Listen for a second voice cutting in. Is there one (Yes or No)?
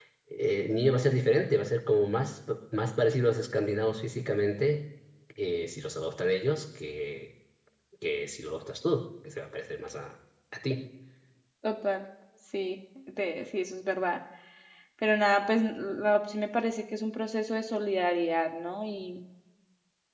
No